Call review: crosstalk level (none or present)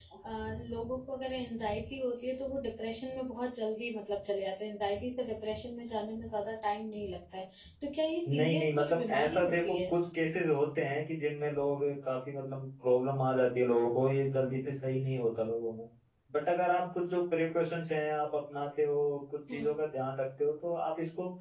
present